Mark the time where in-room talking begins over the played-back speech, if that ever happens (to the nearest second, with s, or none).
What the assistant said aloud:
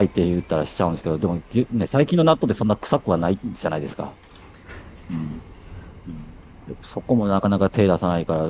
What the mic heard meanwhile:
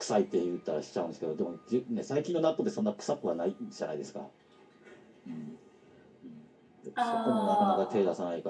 7 s